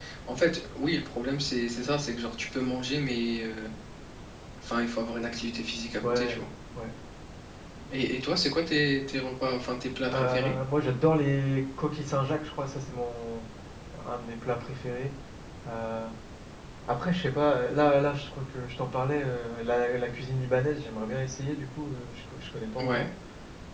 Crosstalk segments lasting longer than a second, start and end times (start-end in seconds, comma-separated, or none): none